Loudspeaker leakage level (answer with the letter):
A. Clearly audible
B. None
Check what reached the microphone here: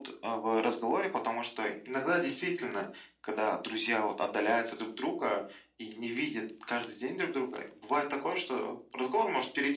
A